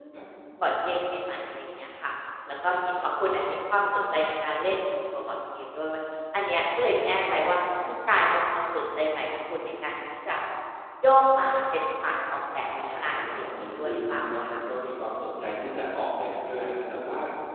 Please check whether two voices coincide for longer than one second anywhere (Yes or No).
Yes